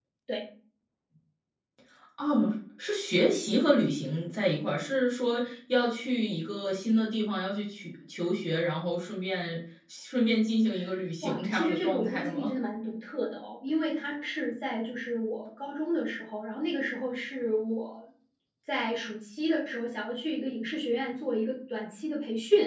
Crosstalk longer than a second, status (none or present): present